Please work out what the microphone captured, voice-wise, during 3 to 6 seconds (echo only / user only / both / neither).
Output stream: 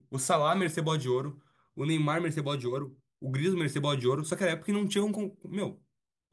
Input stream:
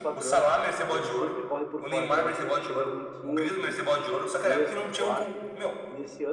both